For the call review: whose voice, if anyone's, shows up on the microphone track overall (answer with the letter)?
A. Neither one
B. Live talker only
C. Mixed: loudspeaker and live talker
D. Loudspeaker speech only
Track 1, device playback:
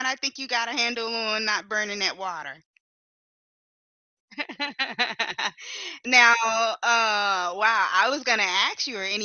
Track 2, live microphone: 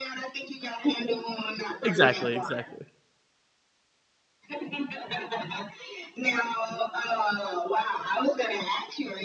C